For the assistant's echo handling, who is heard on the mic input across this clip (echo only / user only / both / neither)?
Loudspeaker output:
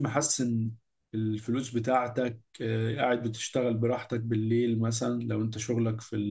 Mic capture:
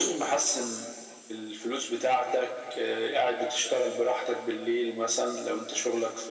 echo only